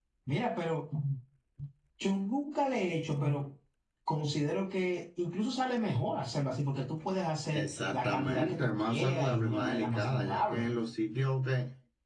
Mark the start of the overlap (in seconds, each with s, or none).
7.5 s